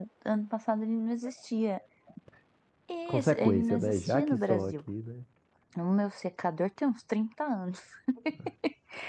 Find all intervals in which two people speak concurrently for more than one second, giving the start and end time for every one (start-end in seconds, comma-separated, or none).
3.1-4.8